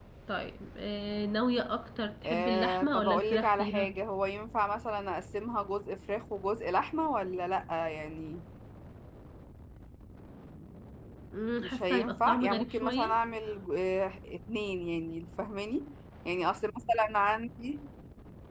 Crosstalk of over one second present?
Yes, from 2.2 s

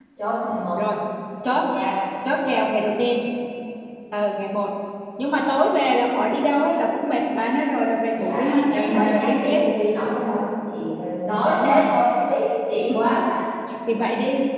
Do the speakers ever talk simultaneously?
Yes, from 8.1 s

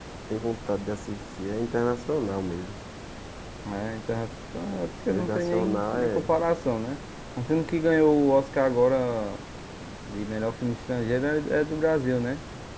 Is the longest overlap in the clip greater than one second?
Yes, from 5.0 s

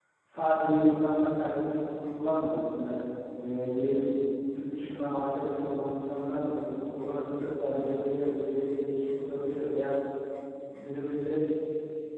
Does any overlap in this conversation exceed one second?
No

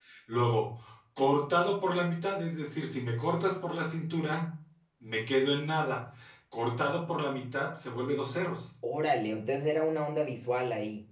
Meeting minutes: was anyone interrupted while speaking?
No

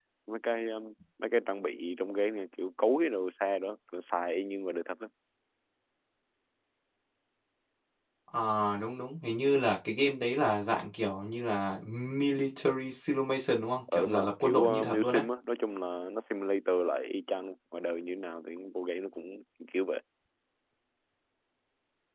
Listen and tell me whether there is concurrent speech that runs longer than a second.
Yes, from 13.9 s

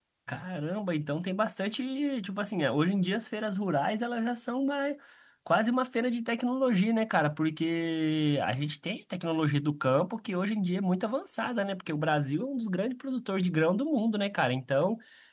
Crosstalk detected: No

